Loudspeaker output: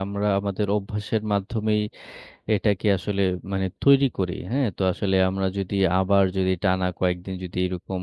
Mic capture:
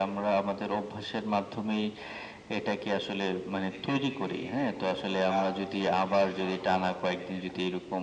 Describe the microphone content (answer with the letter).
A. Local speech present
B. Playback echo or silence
A